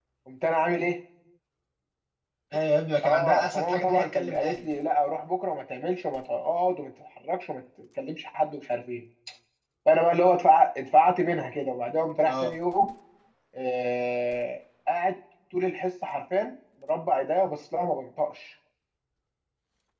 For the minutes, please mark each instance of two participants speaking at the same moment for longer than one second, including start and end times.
3.0-4.8

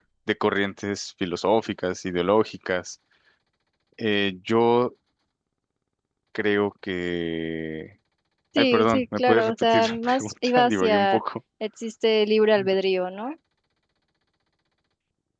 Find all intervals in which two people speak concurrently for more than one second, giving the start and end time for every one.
8.6-11.2

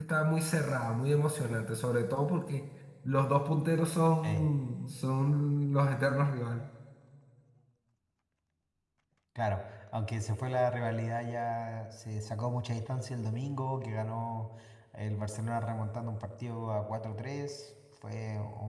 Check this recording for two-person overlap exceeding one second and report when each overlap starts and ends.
none

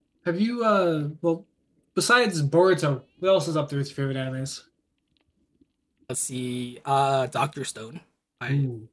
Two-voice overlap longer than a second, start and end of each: none

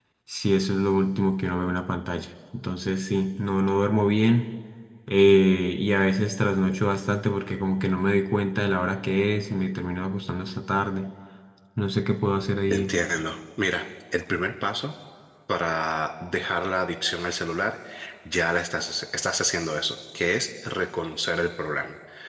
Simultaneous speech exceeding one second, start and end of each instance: none

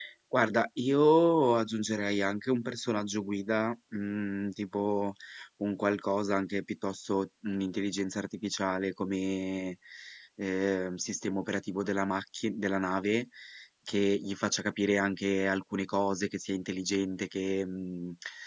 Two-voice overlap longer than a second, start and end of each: none

